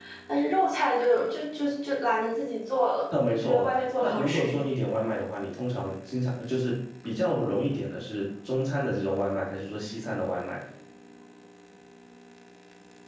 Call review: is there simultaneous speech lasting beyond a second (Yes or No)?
Yes